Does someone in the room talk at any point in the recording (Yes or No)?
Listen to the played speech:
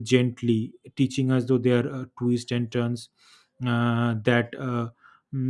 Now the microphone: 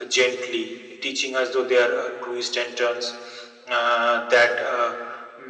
No